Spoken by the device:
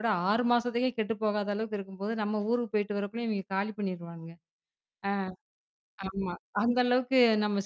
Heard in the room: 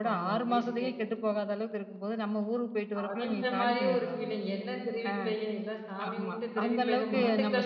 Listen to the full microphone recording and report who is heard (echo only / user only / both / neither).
both